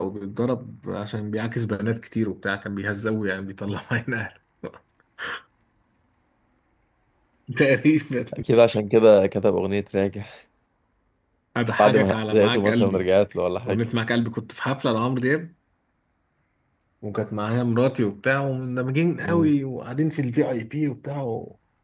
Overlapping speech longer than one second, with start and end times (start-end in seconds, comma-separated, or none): 11.8-13.1